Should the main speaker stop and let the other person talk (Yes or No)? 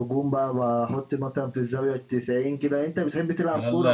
Yes